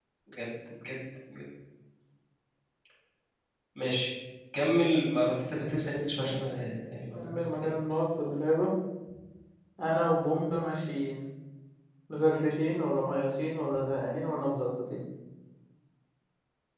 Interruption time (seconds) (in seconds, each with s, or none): 6.2 s